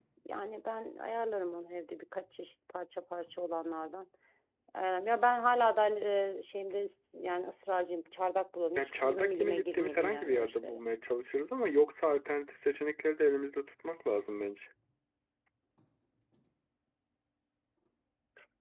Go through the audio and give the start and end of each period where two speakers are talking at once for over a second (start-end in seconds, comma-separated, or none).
8.8-10.8